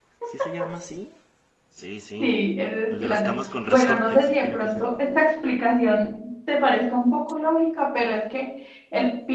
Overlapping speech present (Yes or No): Yes